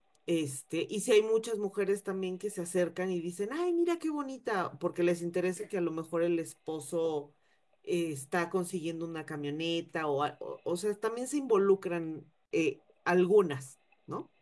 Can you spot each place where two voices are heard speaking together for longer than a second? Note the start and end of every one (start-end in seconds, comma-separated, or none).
none